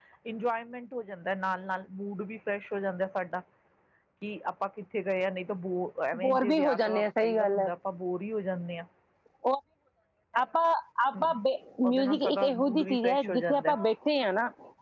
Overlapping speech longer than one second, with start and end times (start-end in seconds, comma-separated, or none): 6.2-7.7, 11.9-13.7